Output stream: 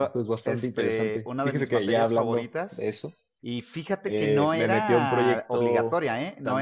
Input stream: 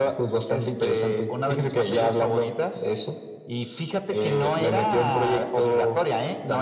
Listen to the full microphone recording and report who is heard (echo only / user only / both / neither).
echo only